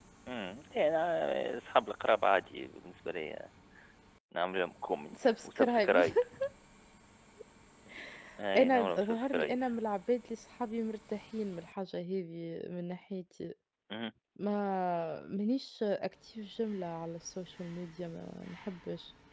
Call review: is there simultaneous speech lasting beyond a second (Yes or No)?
Yes